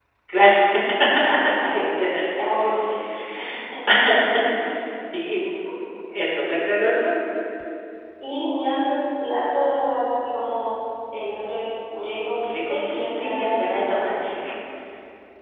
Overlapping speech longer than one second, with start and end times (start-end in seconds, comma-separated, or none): 12.4-14.3